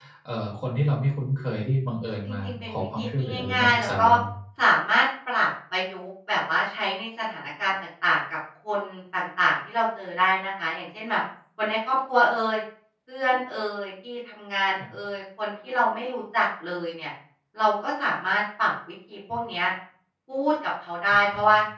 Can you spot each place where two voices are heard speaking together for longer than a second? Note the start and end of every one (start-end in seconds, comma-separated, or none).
2.1-4.1